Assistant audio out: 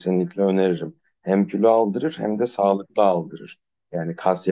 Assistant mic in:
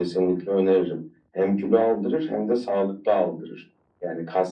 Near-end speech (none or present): none